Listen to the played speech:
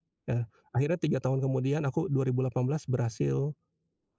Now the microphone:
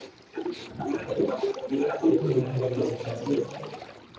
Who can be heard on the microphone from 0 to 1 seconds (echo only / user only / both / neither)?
echo only